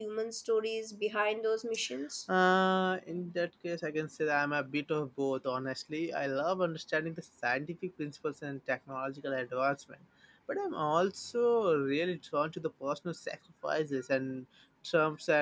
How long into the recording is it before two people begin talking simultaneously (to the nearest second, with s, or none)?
none